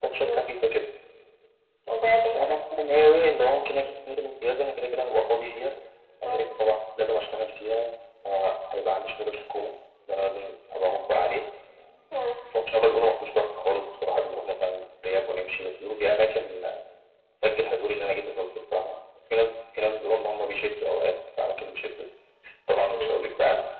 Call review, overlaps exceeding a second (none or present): none